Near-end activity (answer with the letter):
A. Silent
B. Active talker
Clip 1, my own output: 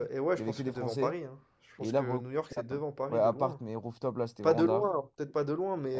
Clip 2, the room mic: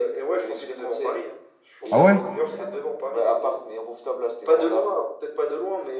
B